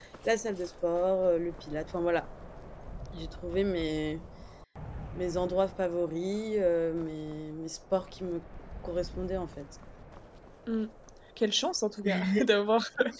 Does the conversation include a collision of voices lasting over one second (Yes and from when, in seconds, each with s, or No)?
No